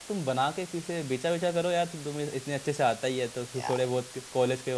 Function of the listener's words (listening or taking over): listening